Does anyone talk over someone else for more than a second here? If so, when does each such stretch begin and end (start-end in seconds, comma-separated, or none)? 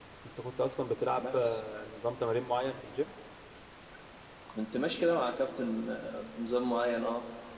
none